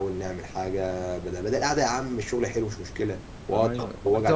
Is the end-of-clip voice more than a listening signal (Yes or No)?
Yes